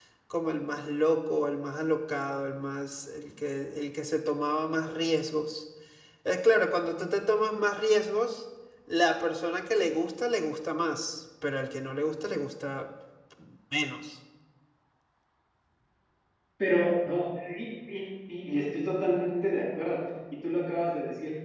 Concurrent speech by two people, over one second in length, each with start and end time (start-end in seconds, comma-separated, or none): none